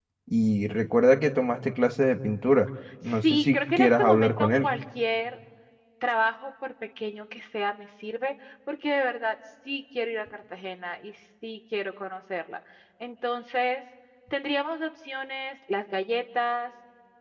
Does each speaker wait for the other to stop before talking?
No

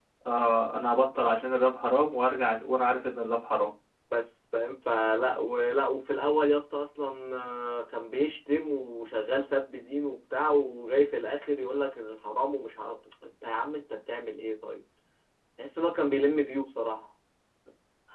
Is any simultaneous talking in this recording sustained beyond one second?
No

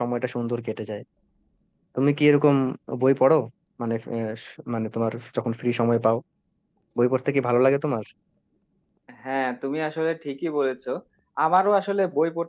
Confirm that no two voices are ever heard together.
Yes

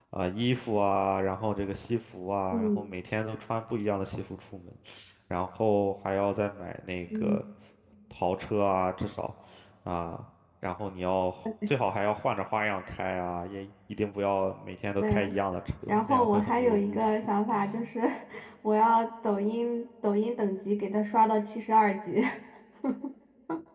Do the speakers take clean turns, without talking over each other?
No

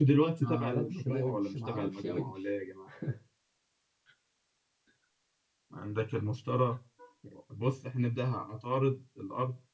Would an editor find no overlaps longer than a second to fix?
No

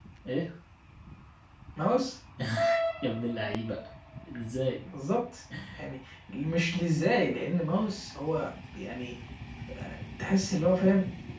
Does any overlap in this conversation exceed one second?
No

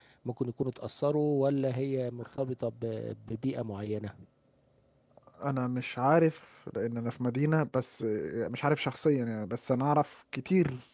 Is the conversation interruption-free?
Yes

